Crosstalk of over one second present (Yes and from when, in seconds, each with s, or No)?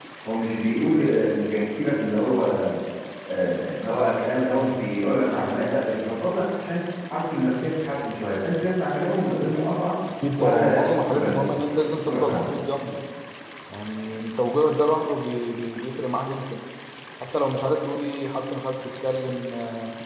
Yes, from 10.4 s